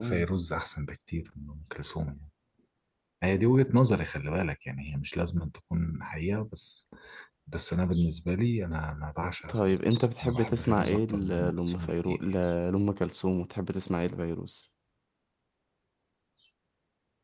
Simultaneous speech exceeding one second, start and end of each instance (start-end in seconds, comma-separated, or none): 9.5-12.2